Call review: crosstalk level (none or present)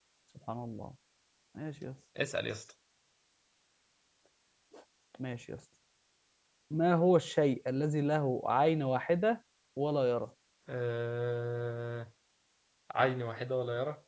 none